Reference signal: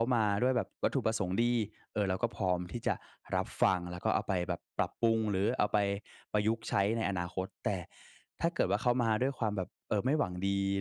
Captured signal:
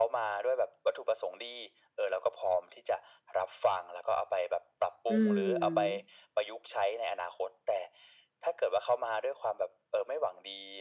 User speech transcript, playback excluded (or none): อืม